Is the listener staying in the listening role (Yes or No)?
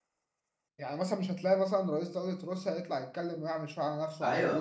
No